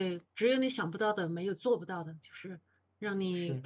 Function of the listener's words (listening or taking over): listening